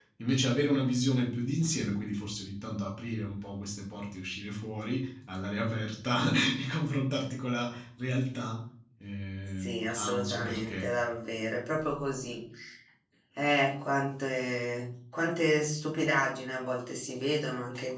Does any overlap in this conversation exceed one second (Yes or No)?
Yes